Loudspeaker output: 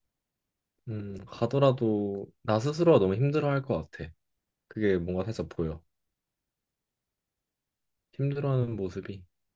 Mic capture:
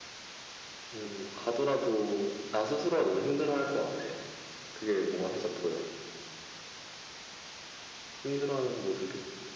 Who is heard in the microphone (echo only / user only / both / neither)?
echo only